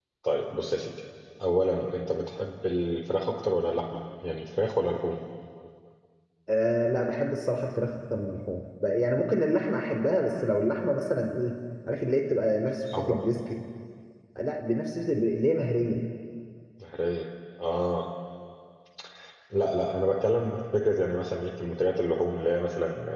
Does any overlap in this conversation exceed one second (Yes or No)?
No